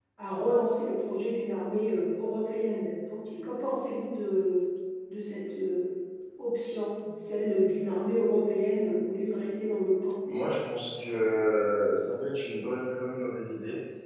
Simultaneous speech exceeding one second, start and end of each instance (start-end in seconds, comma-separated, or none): none